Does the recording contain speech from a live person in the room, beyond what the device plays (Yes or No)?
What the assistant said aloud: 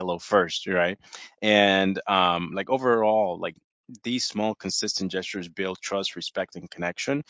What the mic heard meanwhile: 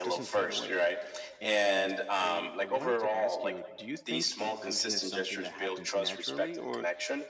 Yes